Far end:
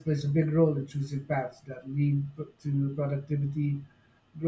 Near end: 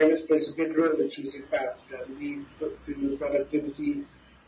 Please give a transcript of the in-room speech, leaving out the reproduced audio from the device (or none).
none